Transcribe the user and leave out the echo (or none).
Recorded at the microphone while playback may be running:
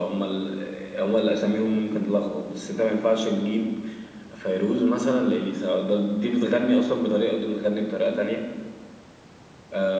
none